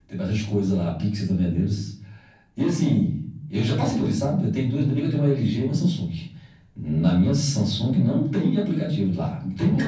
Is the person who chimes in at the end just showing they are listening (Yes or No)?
Yes